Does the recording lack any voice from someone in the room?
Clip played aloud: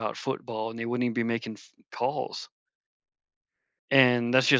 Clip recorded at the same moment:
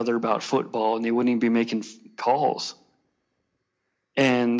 Yes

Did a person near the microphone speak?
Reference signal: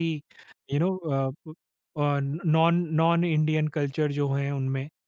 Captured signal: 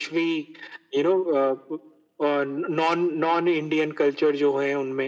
No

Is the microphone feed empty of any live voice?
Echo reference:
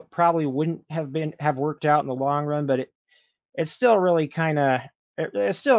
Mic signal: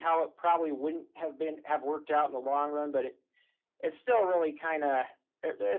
Yes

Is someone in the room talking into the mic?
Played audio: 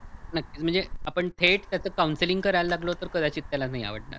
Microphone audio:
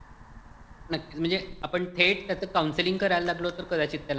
No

